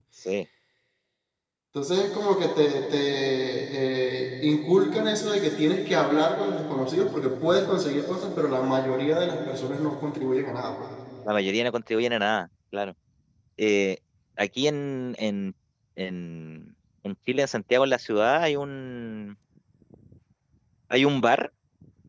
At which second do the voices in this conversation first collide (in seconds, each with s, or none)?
none